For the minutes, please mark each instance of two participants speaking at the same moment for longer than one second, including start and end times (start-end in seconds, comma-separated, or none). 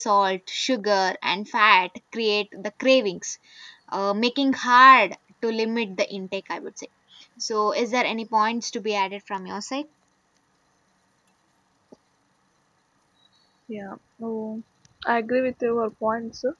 none